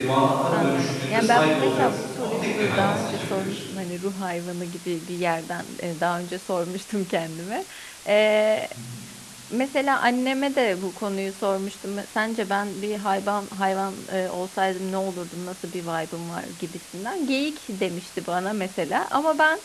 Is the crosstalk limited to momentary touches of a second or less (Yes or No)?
No